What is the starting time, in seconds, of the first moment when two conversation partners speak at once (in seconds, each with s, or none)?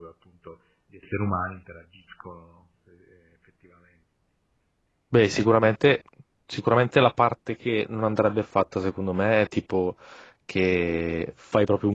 none